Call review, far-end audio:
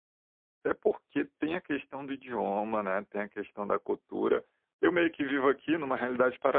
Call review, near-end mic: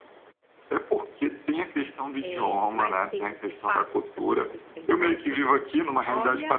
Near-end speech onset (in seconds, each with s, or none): 2.2 s